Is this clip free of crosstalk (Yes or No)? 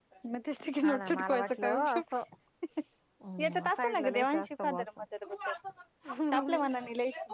No